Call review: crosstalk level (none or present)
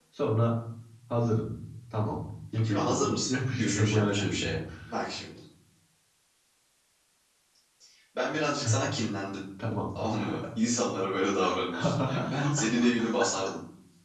present